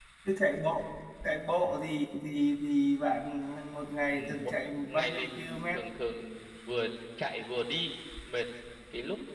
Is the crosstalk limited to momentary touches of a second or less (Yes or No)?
No